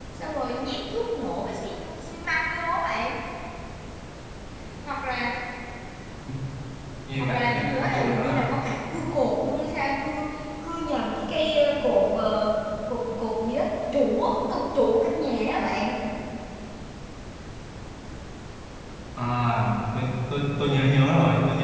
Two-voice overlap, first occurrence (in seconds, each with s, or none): 7.2 s